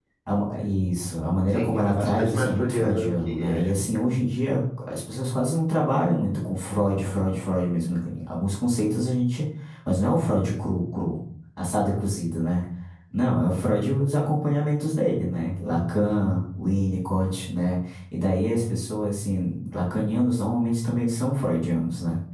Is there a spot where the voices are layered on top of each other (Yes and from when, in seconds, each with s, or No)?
Yes, from 1.6 s